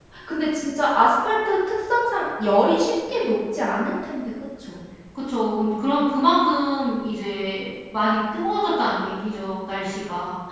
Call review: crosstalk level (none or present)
none